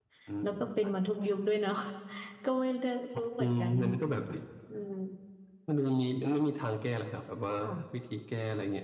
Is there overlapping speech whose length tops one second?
No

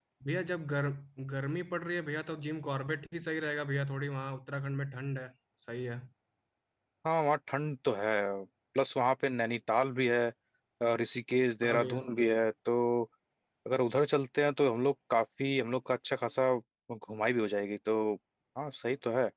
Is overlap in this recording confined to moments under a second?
Yes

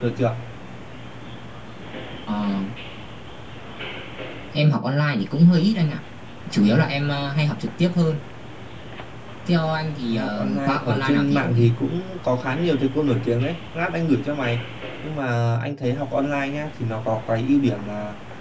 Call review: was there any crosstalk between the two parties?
Yes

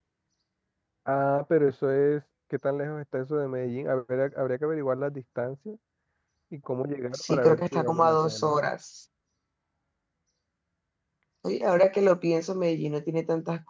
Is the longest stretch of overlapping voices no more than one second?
No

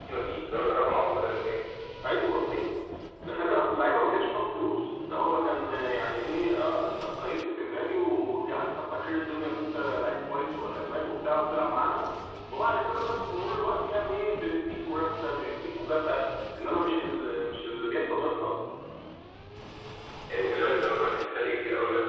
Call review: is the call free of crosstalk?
Yes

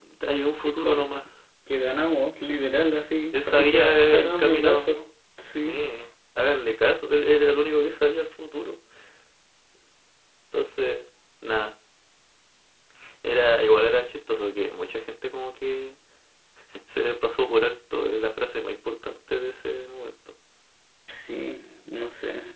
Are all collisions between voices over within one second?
No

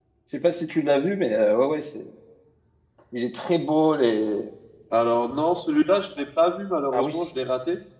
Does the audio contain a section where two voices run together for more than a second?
No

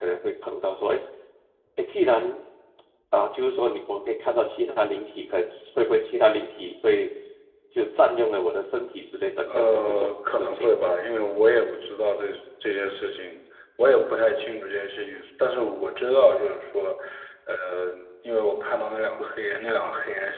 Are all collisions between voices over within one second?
No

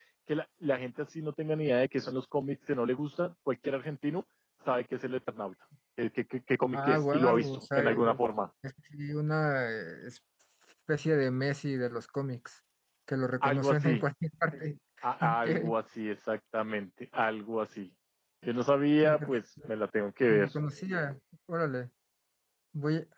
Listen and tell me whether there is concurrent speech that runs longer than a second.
Yes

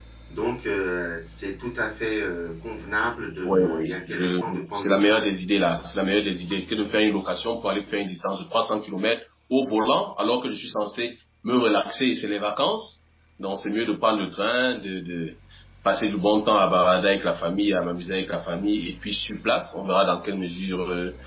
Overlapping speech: Yes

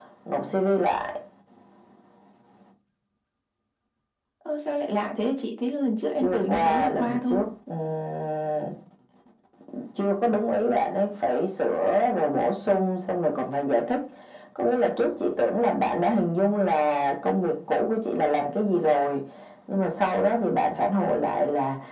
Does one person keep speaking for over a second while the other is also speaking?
Yes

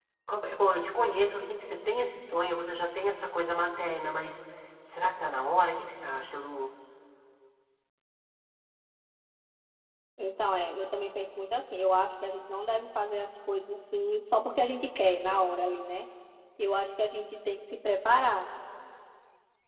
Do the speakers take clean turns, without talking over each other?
Yes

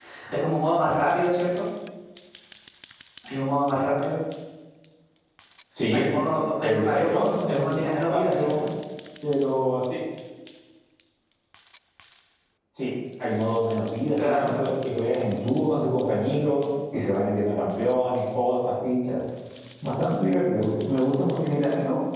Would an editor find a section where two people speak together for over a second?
Yes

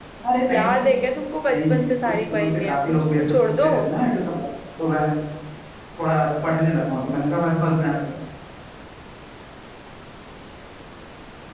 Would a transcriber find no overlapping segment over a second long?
No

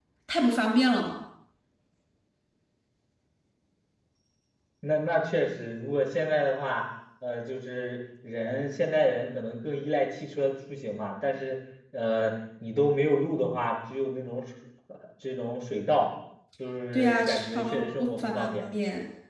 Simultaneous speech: Yes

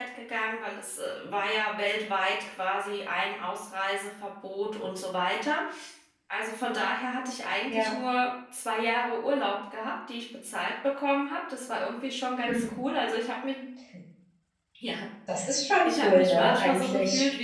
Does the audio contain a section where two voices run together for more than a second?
Yes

